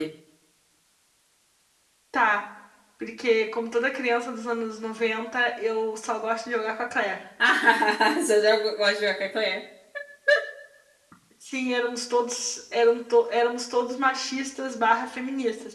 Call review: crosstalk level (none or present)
none